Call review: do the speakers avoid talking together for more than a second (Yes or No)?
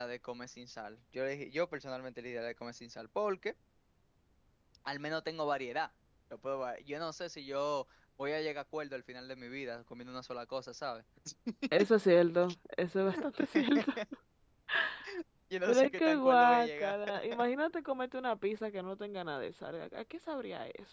No